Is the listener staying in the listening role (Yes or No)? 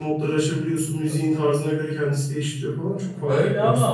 No